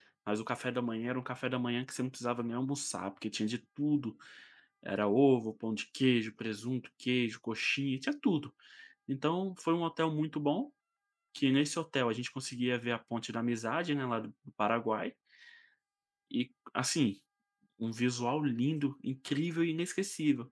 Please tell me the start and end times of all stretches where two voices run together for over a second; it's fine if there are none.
none

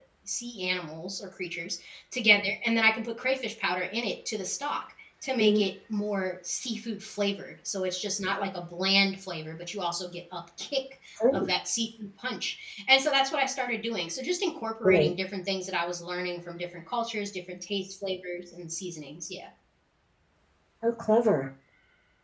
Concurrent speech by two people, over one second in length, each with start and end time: none

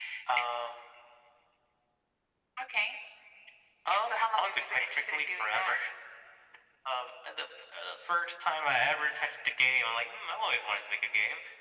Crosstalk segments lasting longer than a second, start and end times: 3.9-5.8

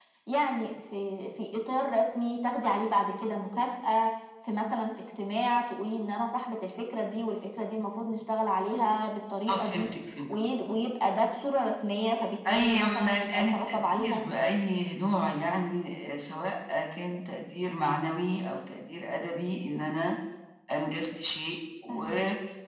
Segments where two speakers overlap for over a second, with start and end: 12.5-14.2

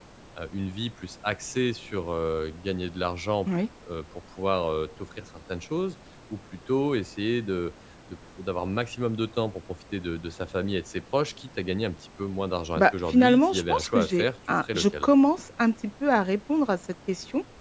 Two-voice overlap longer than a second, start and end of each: 12.8-15.0

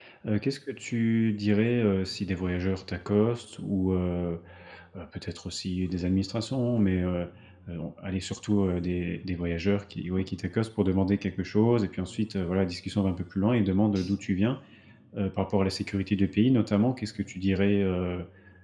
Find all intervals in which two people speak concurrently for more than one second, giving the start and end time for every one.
none

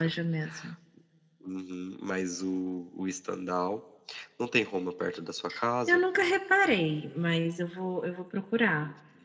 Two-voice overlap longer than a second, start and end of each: none

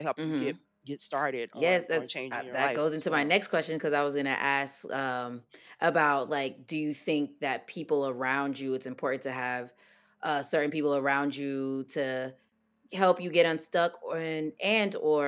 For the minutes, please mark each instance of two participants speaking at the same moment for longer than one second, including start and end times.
1.5-3.3

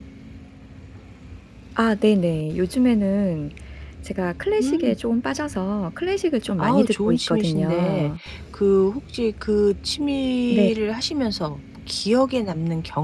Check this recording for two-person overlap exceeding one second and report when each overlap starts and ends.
6.6-8.1

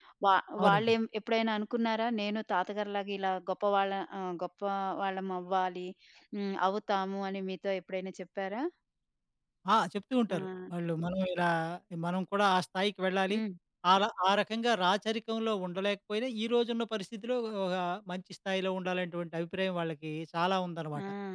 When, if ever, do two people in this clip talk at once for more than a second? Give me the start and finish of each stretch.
none

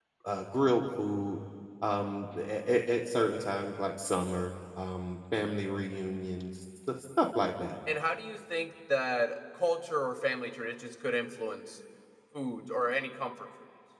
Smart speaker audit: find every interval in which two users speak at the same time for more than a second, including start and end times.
none

